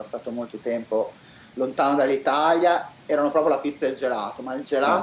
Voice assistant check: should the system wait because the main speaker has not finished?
Yes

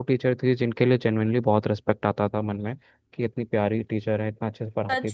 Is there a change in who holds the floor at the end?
Yes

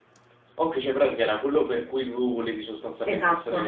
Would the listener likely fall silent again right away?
No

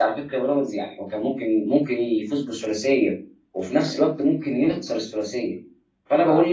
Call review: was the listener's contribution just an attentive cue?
Yes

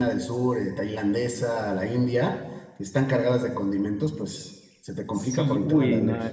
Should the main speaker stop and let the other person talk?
Yes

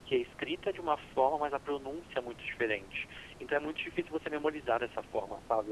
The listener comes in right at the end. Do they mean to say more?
No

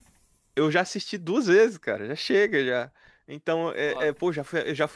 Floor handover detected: No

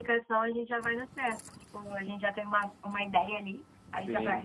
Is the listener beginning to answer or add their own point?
Yes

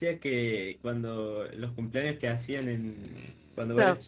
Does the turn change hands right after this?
No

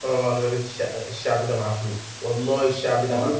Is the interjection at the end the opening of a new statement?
Yes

